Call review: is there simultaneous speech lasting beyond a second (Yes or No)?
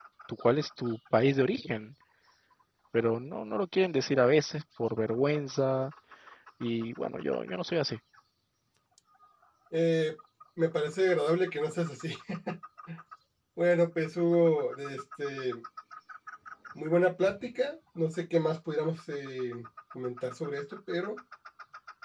No